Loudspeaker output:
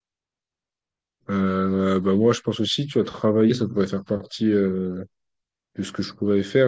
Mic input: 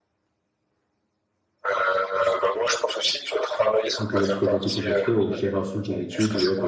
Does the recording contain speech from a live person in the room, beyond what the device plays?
Yes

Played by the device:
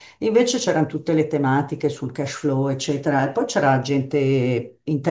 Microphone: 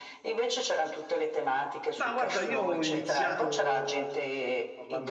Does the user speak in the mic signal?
Yes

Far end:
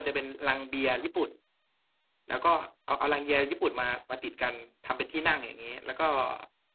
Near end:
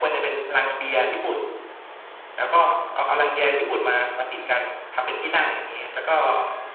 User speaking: No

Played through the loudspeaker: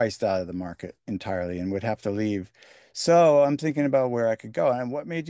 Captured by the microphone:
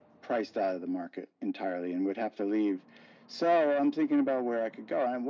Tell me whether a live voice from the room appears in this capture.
No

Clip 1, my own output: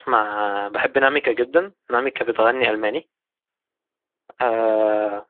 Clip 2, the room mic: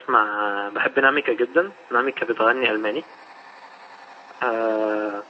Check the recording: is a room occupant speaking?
No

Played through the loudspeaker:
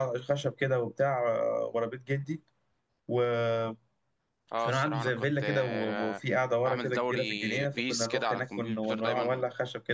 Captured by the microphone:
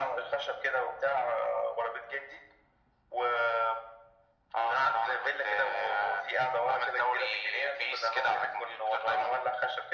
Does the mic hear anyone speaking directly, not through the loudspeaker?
No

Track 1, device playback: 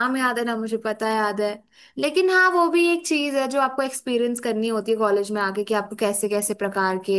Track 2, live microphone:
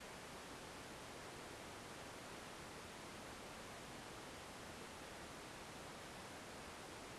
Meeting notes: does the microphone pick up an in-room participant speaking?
No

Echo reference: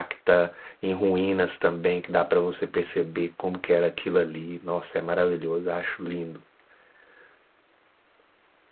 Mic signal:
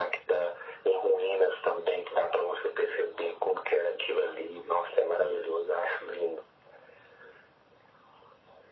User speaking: No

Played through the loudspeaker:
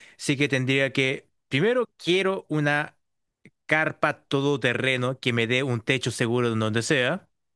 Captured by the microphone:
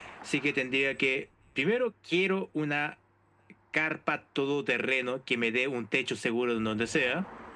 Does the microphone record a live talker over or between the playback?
No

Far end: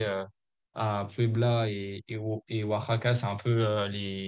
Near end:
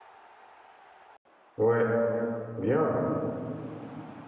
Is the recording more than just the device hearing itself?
Yes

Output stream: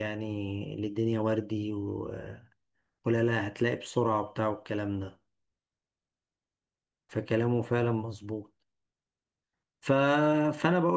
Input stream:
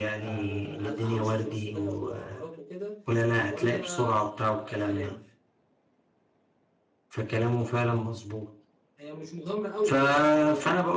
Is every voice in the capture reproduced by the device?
No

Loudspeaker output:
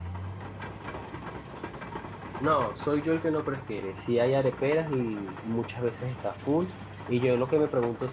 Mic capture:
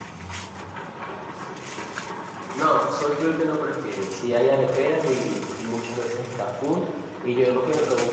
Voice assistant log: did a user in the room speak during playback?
No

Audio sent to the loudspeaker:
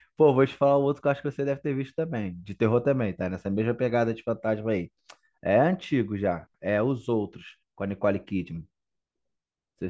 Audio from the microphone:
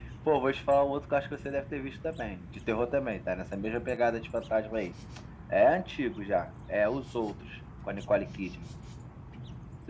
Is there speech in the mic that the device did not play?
No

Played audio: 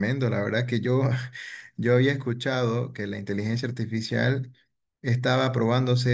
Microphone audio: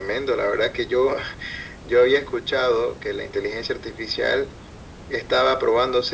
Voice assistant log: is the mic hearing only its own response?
Yes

